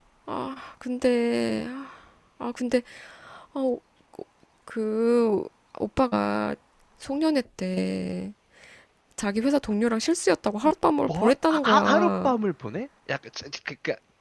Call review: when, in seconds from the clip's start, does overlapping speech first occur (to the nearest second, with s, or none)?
11 s